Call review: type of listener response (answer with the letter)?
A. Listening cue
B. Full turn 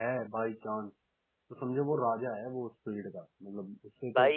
B